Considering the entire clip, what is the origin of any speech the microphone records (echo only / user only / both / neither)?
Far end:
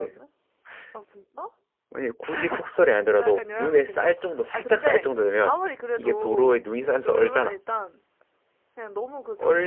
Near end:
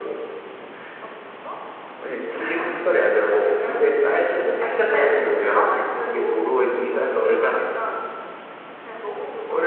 echo only